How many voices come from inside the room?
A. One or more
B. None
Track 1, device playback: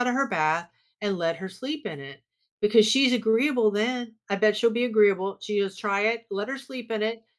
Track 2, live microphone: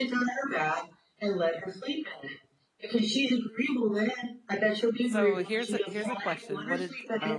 A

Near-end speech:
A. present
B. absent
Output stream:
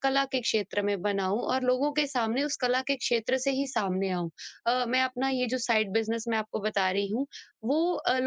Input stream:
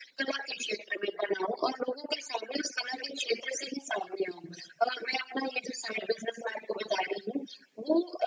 B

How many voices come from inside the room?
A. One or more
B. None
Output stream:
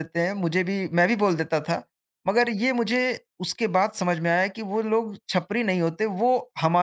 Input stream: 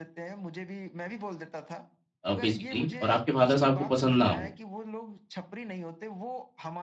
A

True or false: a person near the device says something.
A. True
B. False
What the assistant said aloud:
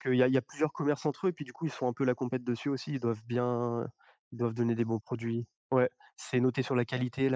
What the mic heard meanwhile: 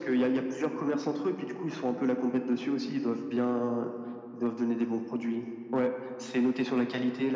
B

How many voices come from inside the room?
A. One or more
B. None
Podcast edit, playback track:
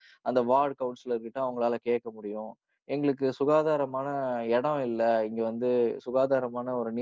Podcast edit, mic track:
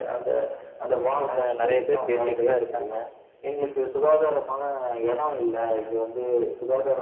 A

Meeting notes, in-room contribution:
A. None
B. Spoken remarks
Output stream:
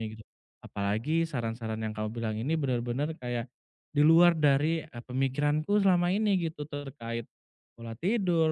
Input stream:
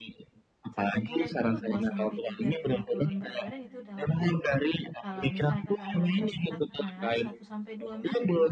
B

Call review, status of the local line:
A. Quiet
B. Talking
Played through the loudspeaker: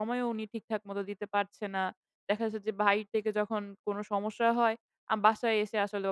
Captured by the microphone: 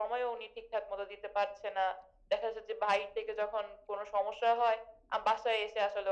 A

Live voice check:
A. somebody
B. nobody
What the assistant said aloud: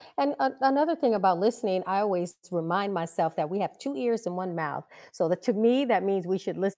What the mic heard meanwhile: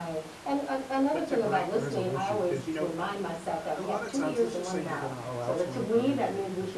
A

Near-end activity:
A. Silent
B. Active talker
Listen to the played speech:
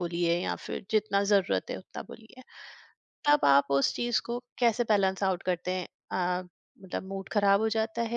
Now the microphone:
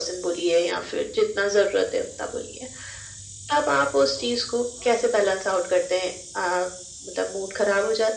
A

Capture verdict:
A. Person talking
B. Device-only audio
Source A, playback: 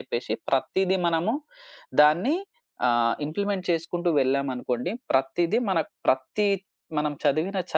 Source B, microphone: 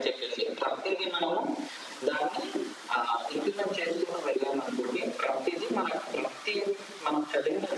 B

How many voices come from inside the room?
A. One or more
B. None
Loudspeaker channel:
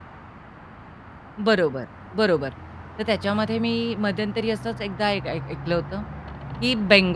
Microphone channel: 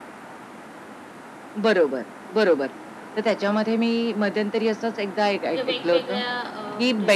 A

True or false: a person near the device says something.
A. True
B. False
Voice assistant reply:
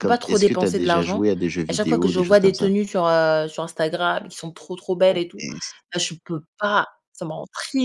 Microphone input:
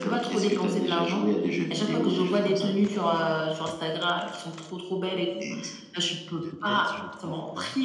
A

